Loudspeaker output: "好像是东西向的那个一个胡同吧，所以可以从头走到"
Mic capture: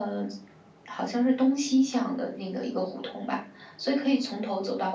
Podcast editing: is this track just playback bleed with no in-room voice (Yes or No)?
Yes